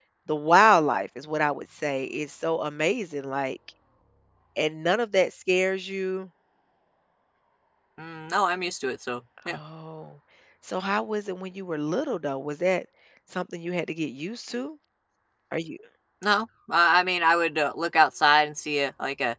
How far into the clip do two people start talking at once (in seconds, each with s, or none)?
none